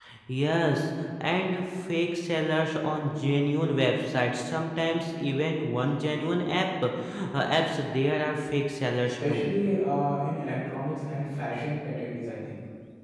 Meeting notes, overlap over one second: none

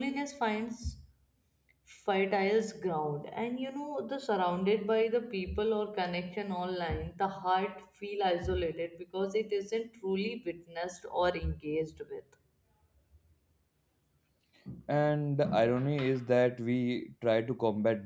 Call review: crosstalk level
none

